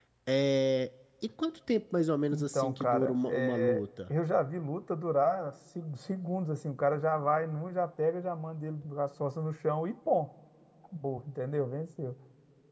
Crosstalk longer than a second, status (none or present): present